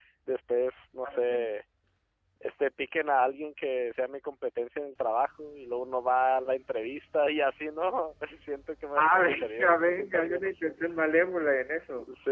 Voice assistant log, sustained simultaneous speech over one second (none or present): present